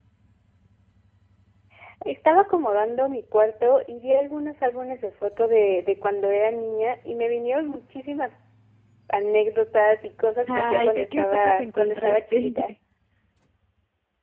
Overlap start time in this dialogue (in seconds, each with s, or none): 10.4 s